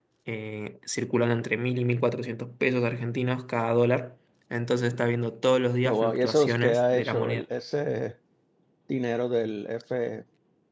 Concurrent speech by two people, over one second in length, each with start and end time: 5.8-7.4

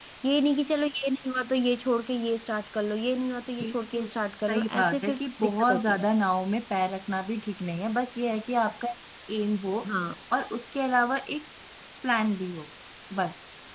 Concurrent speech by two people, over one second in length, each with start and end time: 3.6-6.1

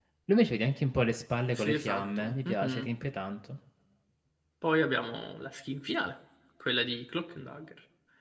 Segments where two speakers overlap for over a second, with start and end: 1.6-2.9

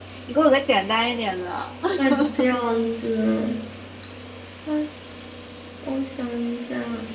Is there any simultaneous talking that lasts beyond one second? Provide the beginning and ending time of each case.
none

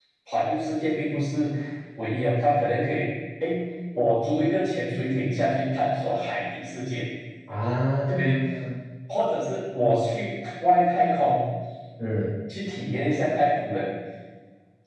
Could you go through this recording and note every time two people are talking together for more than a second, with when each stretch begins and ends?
none

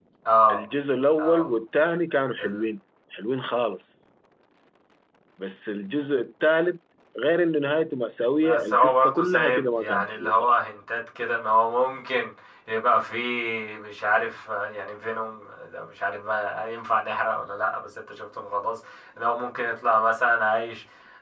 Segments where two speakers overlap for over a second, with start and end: 8.4-10.6

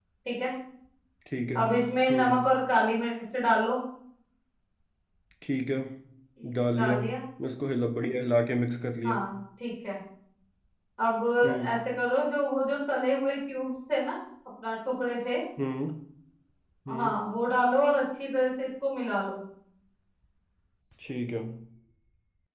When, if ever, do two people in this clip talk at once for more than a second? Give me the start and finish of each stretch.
none

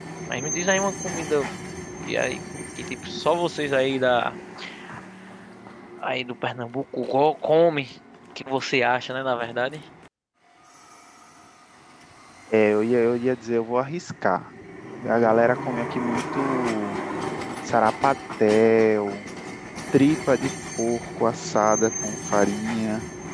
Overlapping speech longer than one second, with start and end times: none

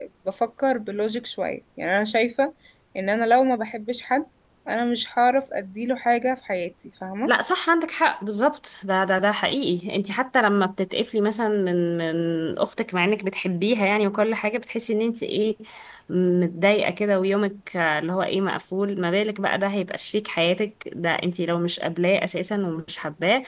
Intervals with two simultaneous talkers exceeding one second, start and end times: none

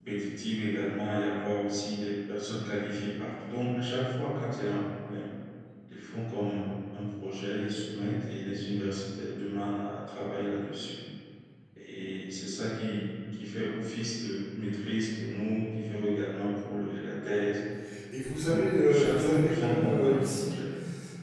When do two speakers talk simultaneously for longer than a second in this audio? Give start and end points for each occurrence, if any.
18.4-20.6

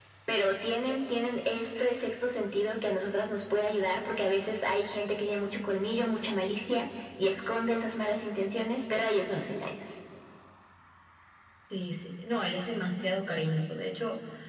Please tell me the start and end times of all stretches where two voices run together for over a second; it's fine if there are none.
none

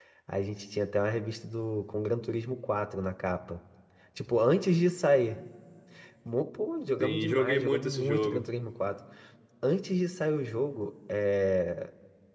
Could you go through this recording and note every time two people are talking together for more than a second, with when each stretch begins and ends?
7.0-8.4

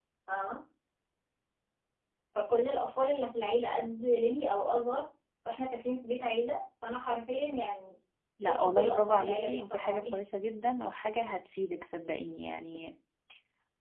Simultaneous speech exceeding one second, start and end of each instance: 8.4-10.1

